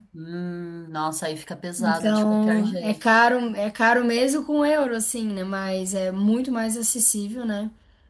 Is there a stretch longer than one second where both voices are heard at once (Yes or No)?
Yes